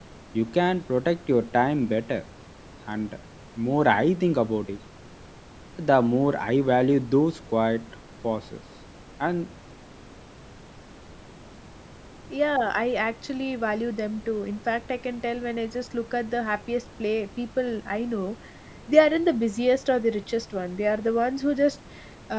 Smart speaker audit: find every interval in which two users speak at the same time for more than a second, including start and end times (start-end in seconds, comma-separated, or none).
none